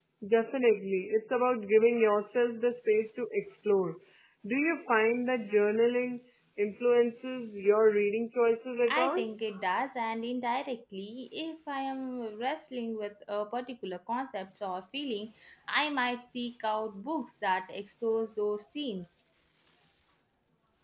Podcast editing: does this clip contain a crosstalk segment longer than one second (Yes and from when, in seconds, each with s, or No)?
No